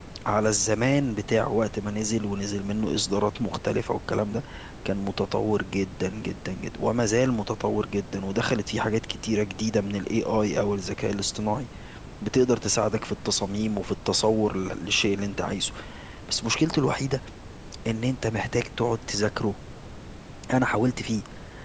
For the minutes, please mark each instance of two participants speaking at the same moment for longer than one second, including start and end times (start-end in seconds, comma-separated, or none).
none